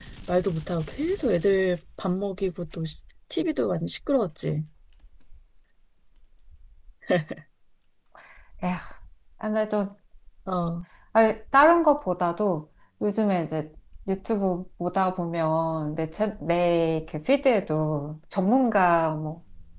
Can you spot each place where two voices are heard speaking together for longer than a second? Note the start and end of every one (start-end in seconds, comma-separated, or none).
none